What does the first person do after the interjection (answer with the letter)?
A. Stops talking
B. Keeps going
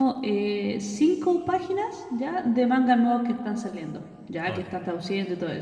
B